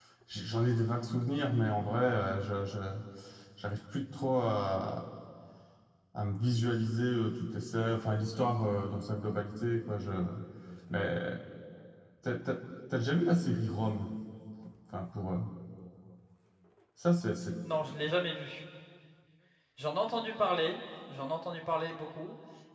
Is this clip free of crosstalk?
Yes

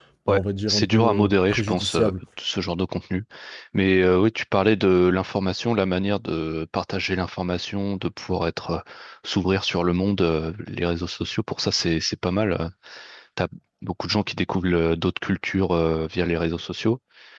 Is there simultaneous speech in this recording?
Yes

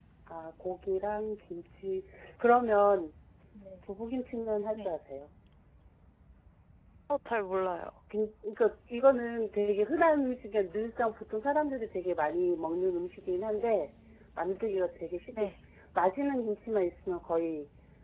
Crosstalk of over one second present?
No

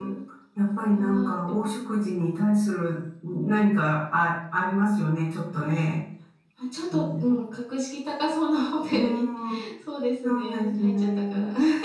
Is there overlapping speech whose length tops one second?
Yes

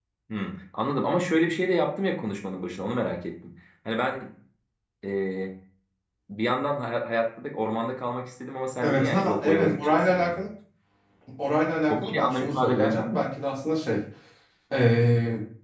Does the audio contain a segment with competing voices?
Yes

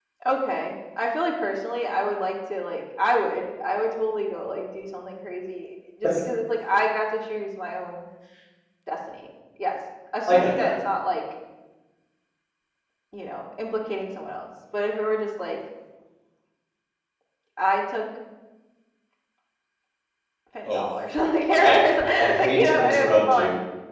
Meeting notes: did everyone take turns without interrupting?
No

